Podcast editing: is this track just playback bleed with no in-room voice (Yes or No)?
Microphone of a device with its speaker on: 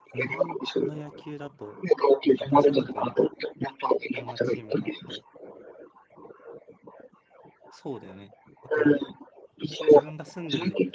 No